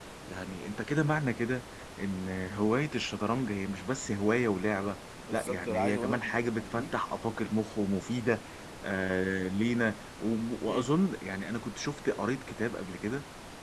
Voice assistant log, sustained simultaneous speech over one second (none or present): present